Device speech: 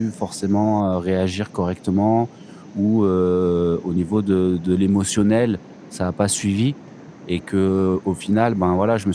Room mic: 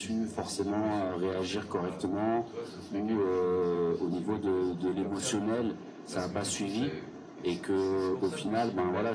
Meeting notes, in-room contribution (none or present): present